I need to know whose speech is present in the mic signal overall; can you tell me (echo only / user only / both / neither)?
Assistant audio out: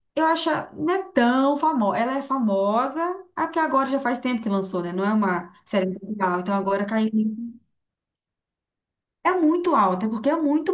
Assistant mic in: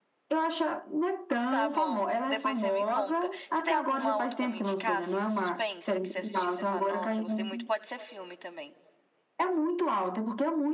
both